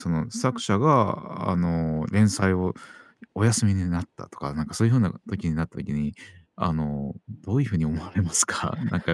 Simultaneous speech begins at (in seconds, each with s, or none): none